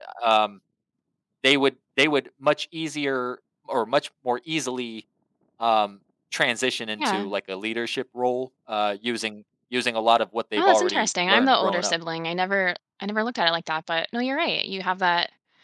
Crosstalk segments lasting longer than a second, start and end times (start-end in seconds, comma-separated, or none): 10.6-11.9